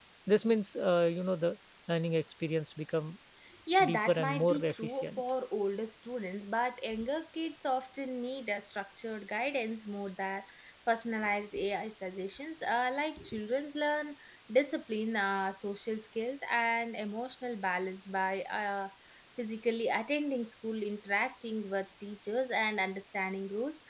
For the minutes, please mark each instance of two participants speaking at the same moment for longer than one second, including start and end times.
3.8-5.2

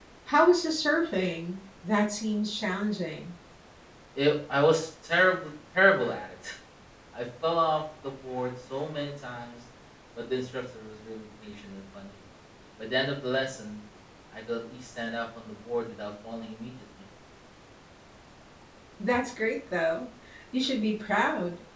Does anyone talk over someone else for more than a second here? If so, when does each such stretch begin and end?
none

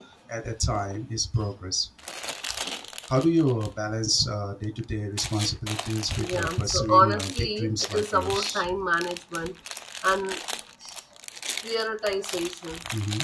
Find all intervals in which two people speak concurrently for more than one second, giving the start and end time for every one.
6.2-8.7

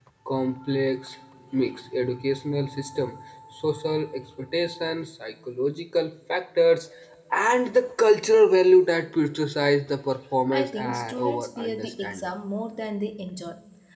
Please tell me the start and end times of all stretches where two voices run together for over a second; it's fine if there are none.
10.5-12.3

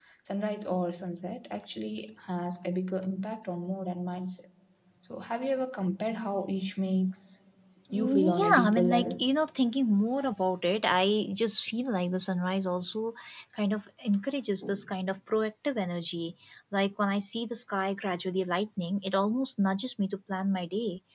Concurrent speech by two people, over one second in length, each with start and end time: 7.9-9.1

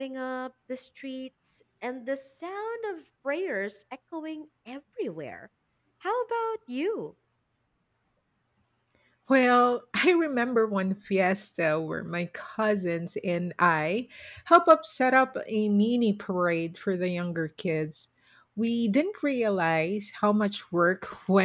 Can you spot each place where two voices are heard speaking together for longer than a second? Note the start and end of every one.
none

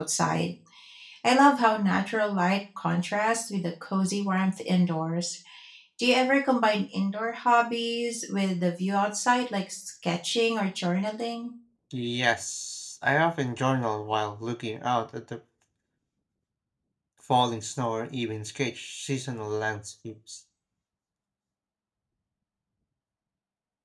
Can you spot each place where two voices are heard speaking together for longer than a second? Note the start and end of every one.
none

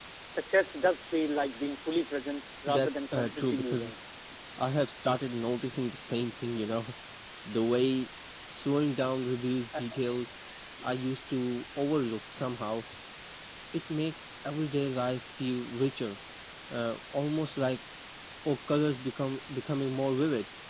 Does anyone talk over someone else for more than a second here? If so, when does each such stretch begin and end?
2.7-3.9

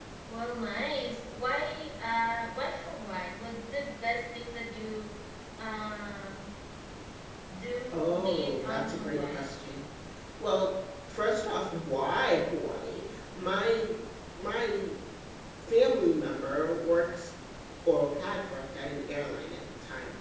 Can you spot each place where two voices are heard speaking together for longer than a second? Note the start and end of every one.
7.9-9.5

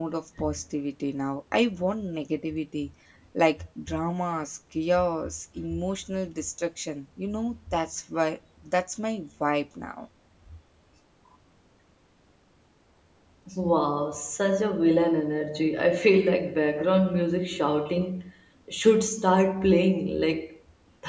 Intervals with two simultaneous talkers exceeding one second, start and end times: none

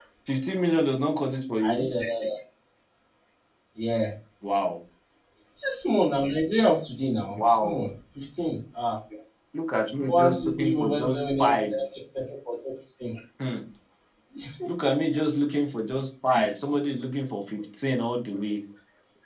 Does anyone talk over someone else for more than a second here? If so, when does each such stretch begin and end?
10.1-11.8

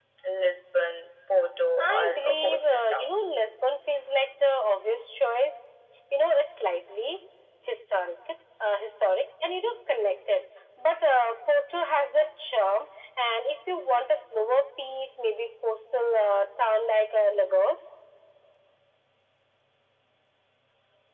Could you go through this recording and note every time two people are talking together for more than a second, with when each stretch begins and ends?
1.9-3.1

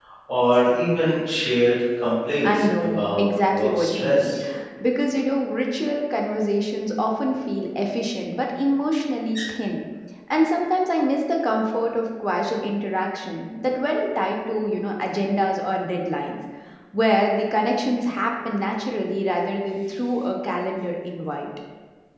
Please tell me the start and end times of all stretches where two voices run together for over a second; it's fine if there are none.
2.4-4.3

